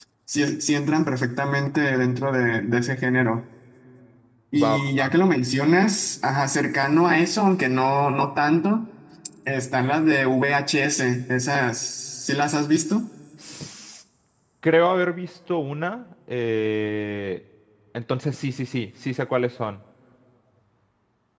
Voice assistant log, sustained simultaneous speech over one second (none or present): none